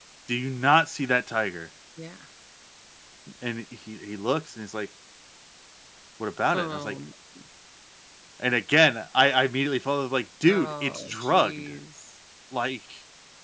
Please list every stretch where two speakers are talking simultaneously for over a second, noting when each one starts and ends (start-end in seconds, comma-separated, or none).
10.5-11.7